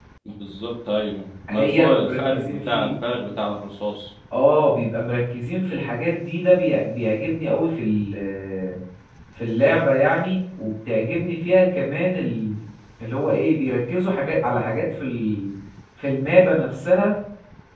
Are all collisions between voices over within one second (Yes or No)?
No